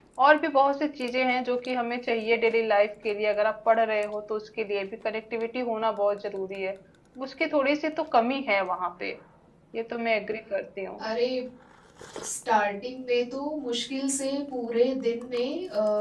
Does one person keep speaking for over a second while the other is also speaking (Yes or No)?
No